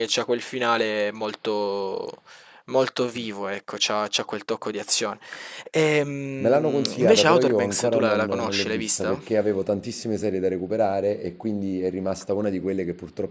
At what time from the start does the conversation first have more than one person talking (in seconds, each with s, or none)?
6.4 s